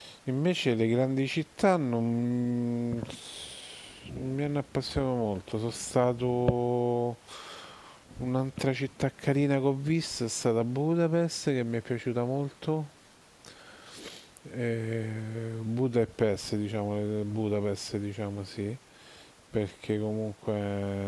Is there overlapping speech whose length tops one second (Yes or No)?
No